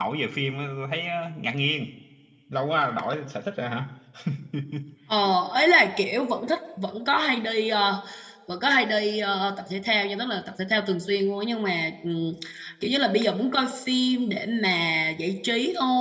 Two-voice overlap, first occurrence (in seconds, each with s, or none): none